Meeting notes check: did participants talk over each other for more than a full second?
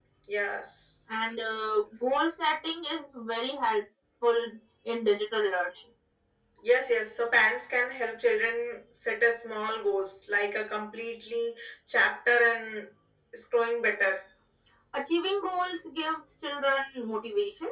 No

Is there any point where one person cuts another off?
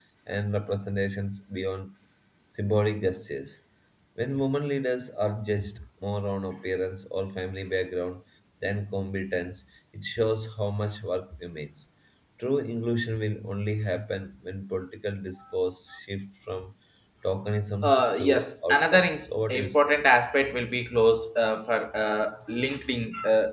Yes, from 17.8 s

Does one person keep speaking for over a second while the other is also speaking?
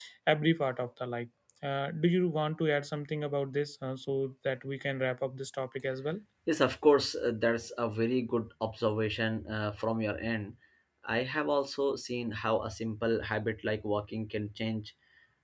No

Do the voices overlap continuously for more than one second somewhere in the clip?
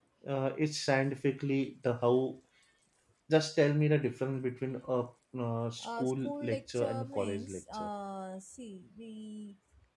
Yes, from 5.8 s

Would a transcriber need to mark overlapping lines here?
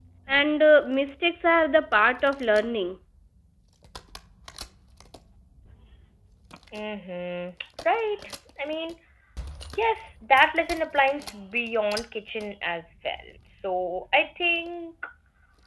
No

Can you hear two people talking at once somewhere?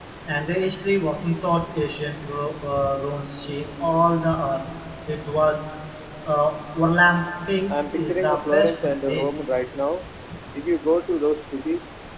Yes, from 7.7 s

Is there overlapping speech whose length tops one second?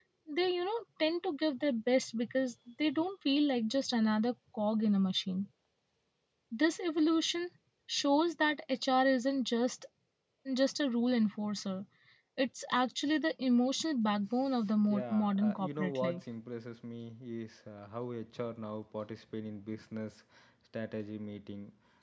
Yes, from 14.9 s

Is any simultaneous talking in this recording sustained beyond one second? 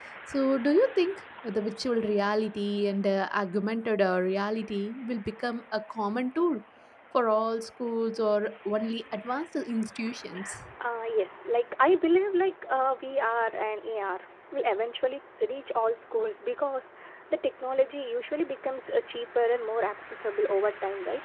No

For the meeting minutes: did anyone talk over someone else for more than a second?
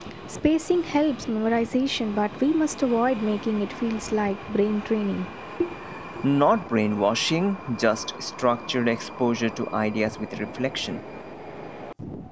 No

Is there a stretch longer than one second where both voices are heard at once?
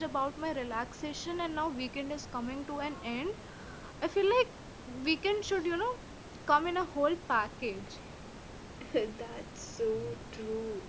No

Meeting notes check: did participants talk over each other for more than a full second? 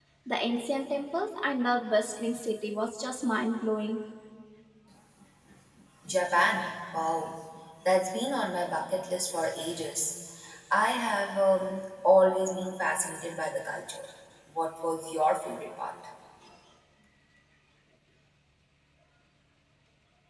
No

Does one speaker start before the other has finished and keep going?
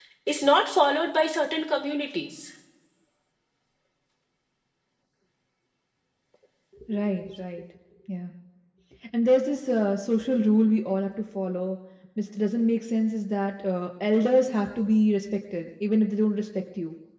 No

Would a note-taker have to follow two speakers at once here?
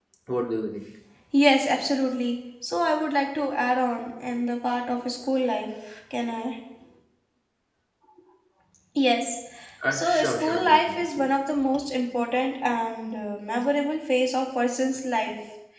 Yes, from 9.9 s

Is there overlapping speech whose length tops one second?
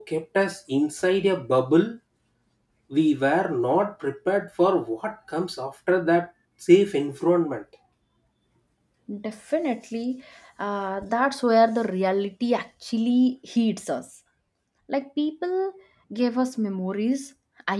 No

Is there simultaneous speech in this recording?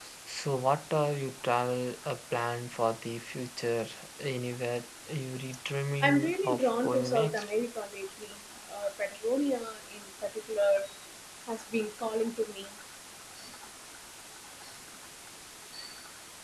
Yes, from 6.0 s

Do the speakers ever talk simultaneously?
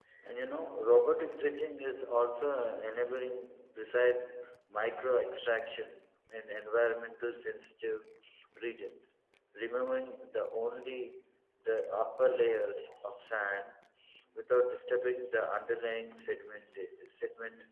No

